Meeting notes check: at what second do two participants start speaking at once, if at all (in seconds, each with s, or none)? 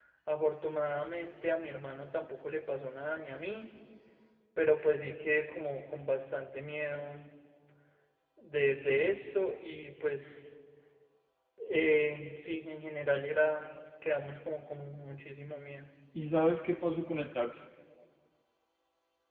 none